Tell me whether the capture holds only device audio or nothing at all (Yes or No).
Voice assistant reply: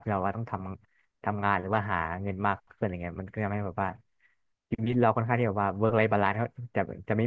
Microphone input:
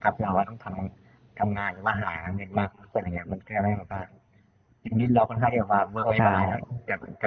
No